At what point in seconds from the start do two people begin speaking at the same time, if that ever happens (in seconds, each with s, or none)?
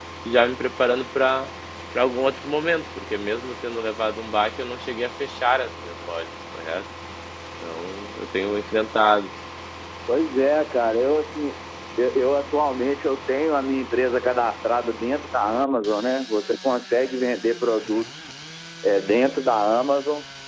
none